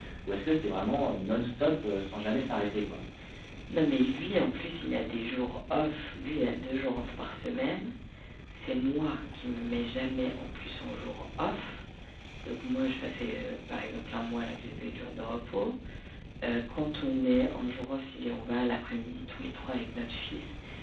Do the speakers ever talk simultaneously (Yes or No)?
No